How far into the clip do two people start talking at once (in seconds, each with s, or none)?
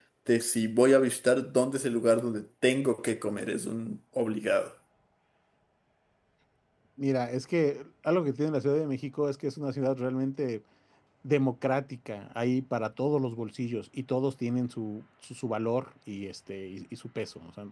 none